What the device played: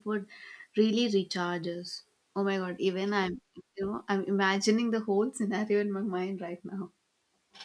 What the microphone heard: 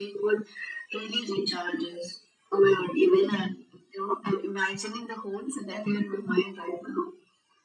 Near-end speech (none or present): none